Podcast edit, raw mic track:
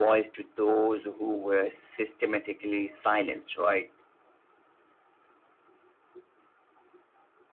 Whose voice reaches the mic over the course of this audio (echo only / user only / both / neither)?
echo only